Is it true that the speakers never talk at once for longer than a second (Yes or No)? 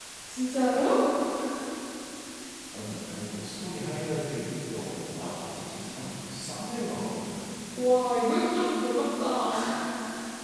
Yes